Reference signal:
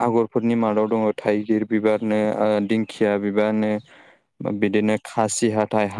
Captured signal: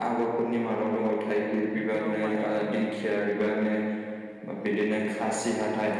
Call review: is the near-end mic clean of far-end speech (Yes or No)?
No